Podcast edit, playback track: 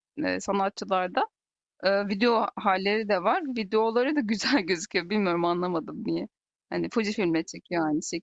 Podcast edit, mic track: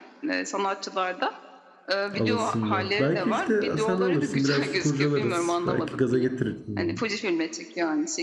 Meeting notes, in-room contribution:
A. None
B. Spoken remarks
B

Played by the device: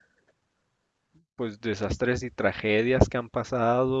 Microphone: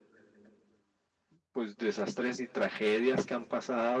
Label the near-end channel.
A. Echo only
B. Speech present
A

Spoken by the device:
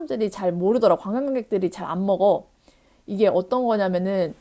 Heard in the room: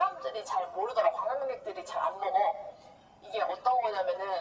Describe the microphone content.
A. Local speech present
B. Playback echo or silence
B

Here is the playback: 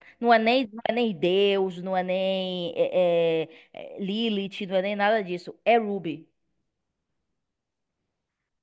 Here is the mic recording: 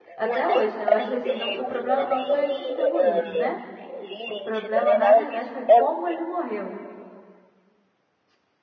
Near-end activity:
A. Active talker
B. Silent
A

